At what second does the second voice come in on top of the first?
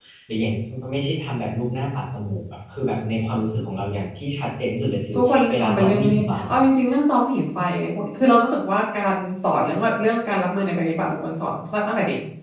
5.2 s

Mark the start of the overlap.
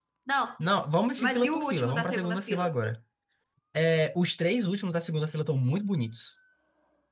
1.2 s

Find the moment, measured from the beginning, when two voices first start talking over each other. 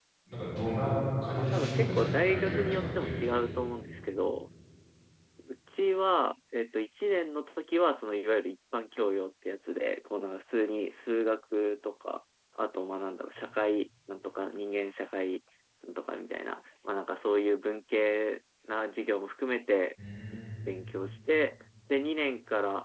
1.4 s

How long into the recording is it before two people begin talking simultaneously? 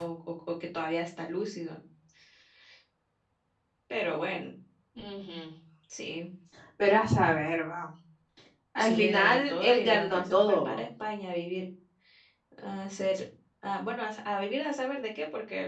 8.8 s

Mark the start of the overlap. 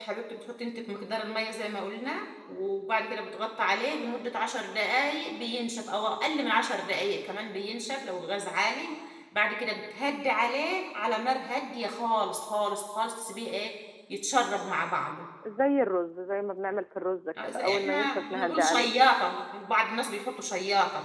17.4 s

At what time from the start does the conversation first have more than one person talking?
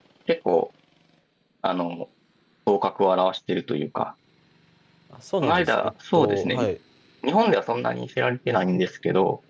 5.4 s

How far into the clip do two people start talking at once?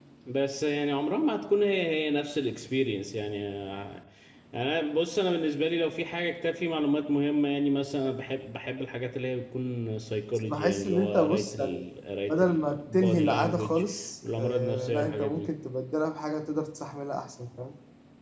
10.5 s

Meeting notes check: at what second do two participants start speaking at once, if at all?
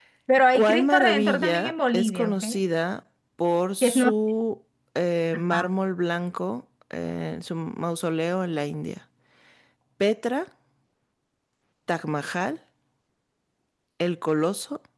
0.6 s

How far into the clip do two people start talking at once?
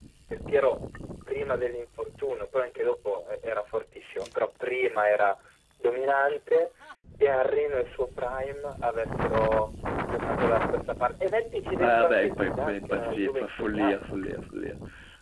11.8 s

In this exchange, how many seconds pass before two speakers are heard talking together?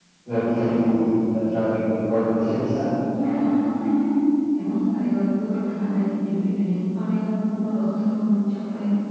none

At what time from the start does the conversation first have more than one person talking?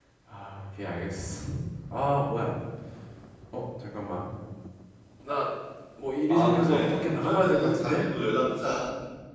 6.3 s

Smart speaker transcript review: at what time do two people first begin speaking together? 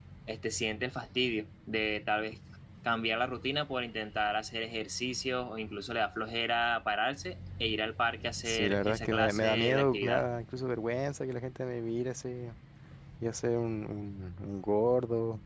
8.4 s

